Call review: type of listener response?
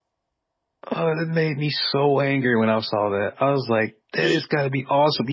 listening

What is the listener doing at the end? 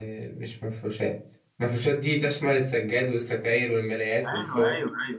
taking over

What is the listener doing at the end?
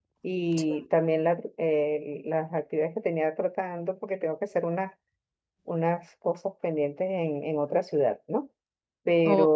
listening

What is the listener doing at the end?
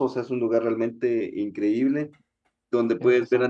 listening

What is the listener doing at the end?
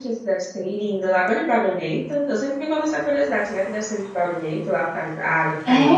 taking over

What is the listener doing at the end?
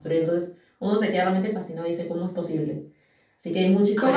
taking over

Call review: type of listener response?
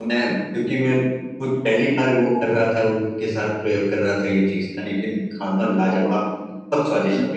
listening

